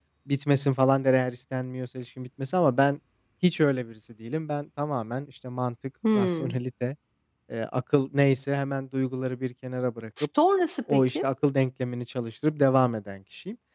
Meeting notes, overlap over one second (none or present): none